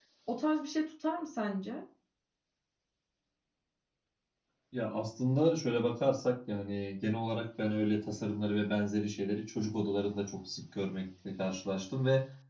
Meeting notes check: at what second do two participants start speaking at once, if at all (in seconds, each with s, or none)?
none